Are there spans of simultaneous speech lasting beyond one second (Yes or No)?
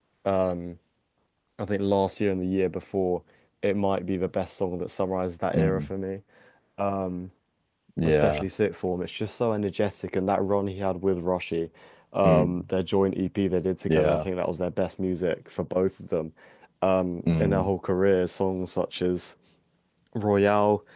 No